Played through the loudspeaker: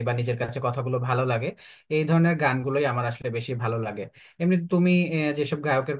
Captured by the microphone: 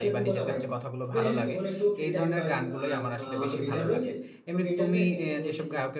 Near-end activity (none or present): present